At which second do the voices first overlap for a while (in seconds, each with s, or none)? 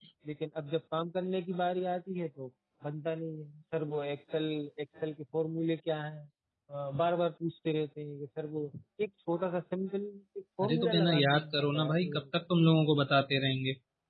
10.7 s